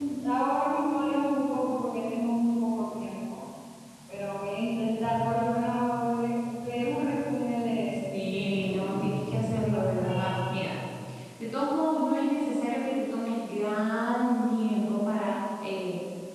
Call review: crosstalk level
present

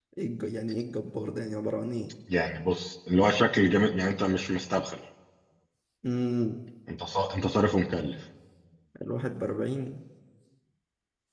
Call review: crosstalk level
none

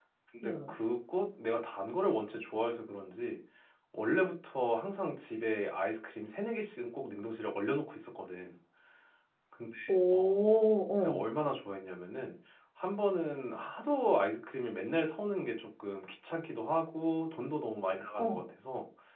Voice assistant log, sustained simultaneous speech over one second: none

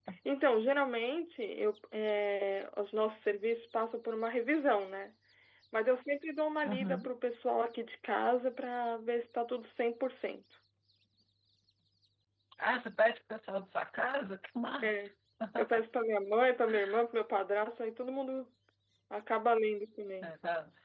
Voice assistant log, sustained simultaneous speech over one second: none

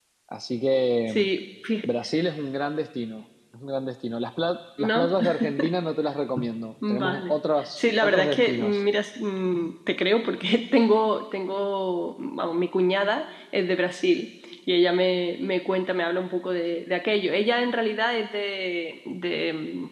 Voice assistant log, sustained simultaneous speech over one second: present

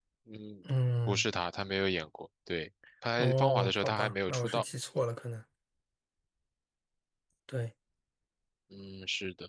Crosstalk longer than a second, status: present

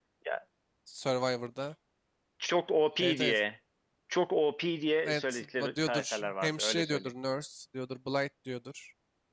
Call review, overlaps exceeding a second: present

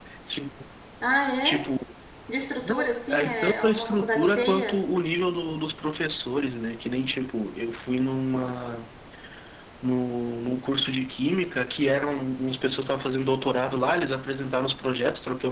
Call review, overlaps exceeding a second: present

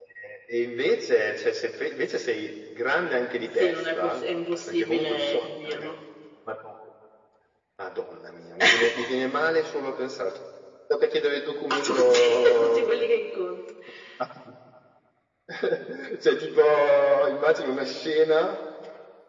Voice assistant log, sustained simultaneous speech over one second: present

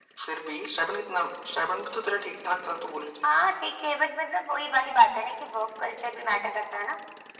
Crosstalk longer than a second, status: none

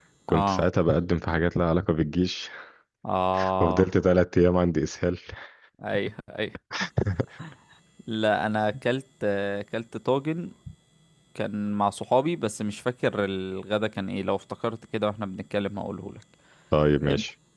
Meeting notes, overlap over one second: none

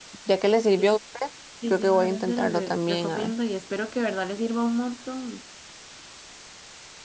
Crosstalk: present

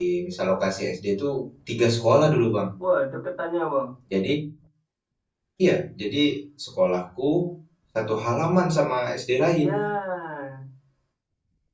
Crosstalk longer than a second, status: none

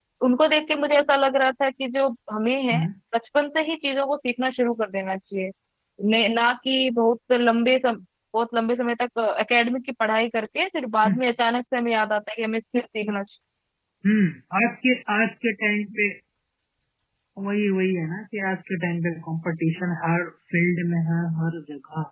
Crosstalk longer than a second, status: none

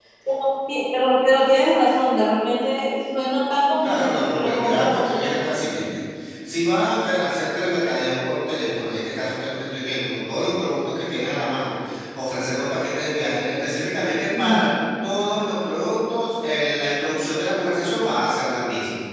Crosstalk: present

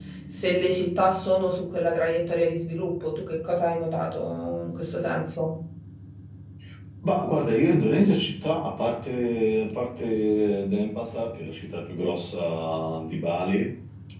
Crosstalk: none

